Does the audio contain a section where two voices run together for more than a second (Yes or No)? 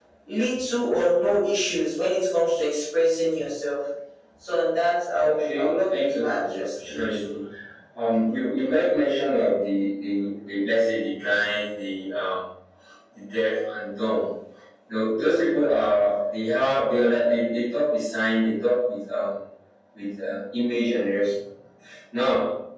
Yes